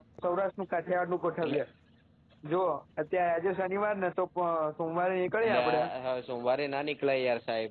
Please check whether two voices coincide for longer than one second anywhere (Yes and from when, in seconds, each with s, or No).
No